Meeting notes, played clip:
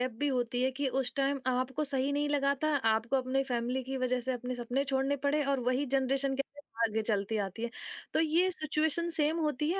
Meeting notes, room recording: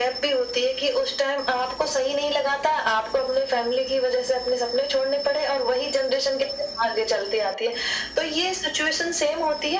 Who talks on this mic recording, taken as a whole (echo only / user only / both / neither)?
echo only